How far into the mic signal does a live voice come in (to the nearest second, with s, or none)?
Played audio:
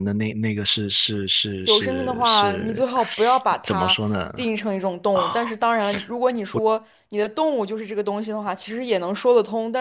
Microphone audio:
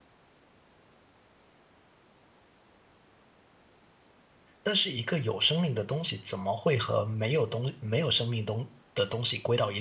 5 s